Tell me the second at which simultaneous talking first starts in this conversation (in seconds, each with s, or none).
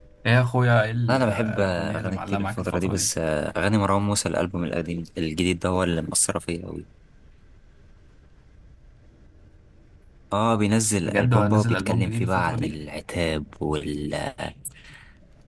1.1 s